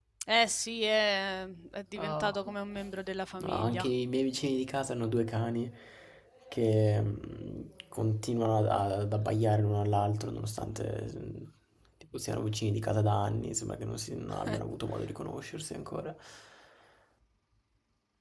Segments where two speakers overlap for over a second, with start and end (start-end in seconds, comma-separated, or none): none